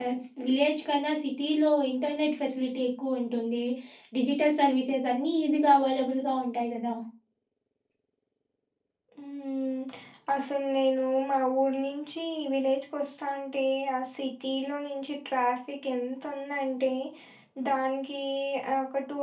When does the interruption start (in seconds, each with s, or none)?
none